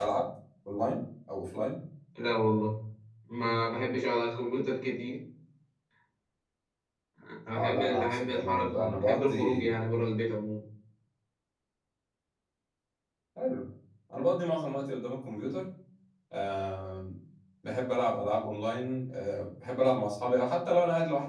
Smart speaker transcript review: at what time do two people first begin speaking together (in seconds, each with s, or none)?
7.5 s